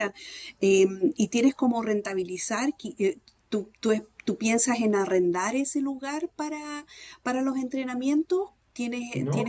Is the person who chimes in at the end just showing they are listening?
No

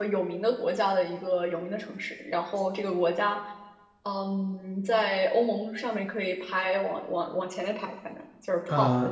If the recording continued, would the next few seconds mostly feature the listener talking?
Yes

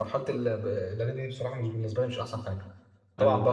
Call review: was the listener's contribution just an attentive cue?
Yes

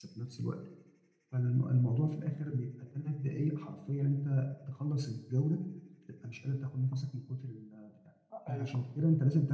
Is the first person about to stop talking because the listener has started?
No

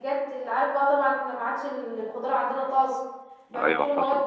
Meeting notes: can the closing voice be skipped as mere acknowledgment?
Yes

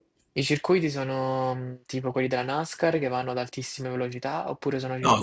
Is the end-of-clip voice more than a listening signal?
Yes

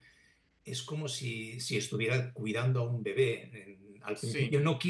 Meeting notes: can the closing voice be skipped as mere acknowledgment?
Yes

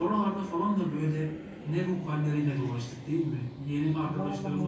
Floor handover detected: No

